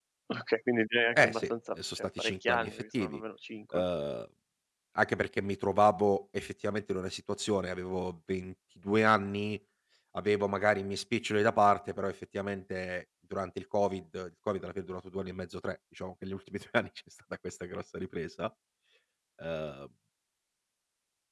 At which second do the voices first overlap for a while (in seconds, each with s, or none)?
1.2 s